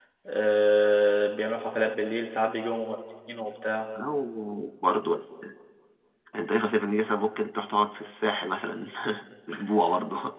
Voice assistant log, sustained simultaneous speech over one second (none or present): none